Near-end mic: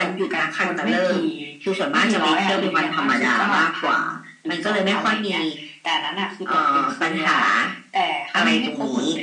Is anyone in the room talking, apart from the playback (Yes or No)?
No